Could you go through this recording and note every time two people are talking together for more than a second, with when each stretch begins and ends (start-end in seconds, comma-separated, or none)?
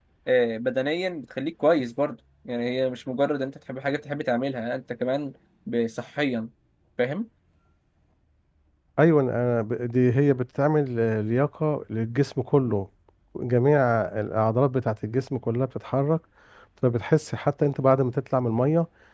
none